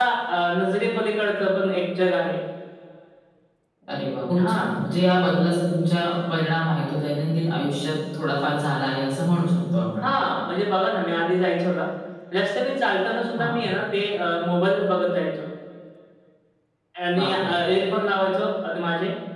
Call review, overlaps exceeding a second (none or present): none